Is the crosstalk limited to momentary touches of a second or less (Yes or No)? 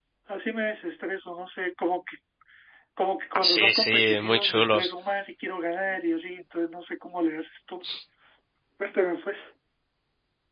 No